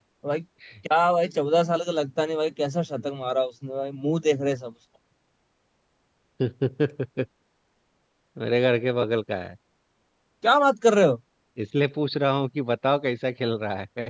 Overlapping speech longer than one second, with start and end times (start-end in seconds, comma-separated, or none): none